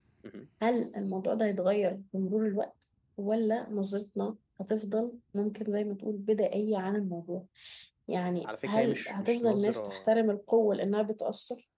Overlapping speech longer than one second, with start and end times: 8.4-10.1

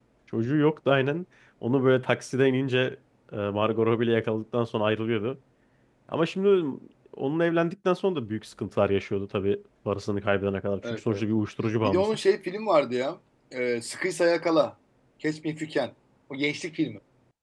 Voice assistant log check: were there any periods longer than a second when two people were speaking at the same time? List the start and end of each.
none

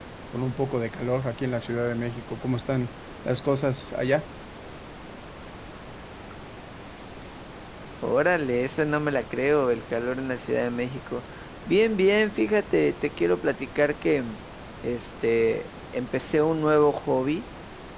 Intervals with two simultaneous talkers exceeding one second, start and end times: none

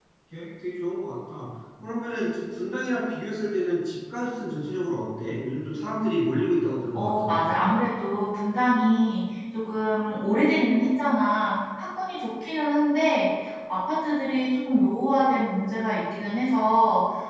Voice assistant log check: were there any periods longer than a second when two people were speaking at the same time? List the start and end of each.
none

